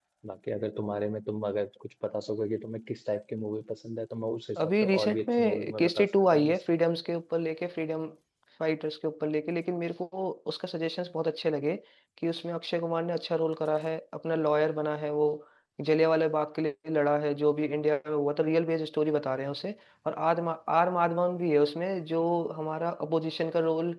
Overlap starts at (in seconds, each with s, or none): 4.6 s